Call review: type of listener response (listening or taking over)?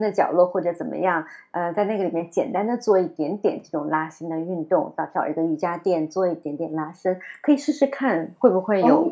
taking over